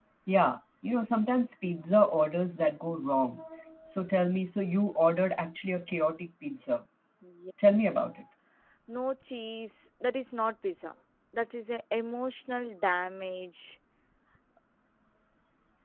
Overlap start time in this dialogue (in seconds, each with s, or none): none